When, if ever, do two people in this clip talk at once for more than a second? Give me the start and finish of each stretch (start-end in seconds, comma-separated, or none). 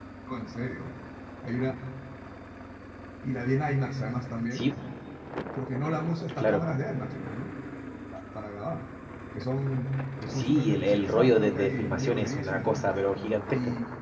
10.3-12.9